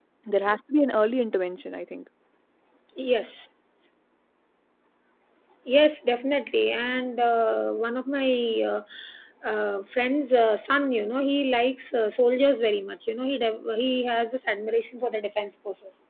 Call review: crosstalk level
none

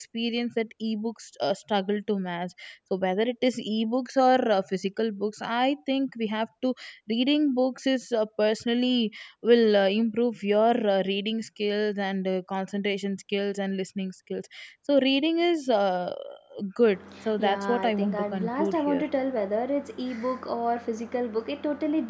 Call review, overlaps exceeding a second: present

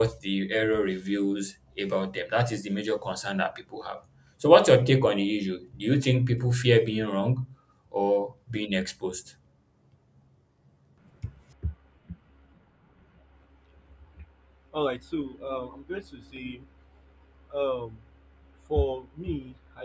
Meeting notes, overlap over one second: none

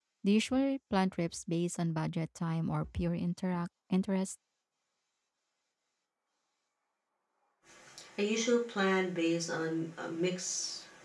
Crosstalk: none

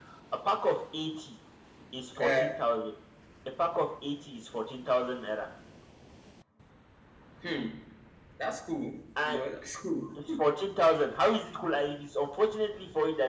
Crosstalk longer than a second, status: none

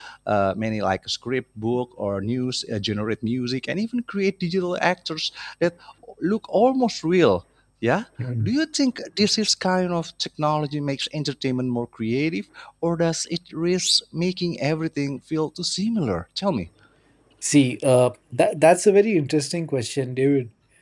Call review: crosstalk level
none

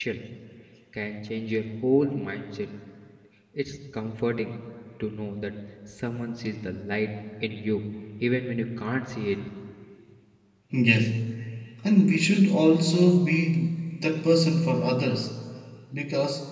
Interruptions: none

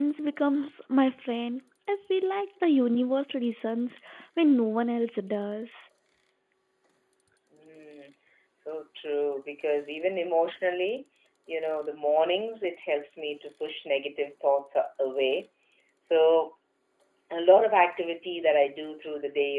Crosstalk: none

